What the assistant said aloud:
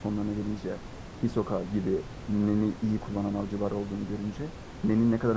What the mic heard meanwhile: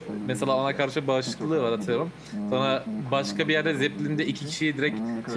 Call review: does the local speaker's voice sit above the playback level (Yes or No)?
Yes